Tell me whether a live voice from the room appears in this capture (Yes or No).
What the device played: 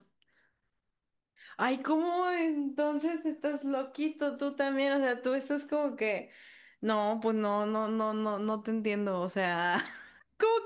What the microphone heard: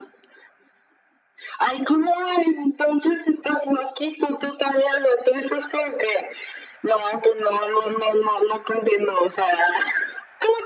No